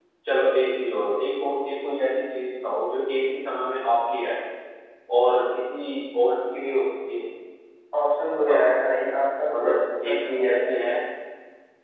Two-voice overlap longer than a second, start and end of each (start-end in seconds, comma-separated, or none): 9.5-10.8